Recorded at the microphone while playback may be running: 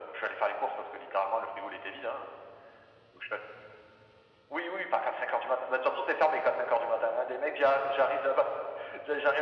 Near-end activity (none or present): none